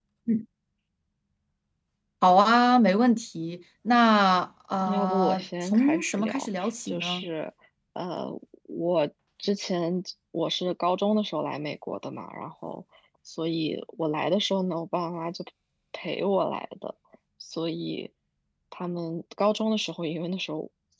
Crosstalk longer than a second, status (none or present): present